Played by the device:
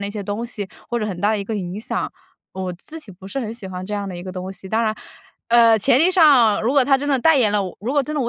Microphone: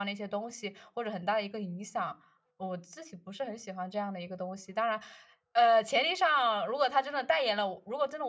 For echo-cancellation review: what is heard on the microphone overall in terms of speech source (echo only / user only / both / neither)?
echo only